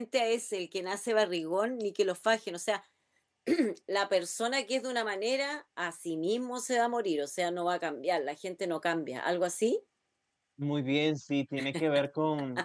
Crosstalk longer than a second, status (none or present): none